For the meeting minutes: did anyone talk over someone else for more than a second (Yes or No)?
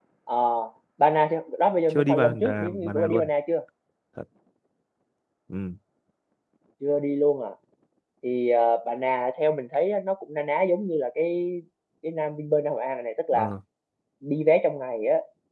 Yes